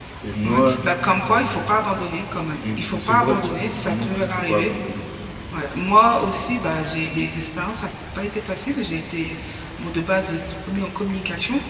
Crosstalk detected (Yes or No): Yes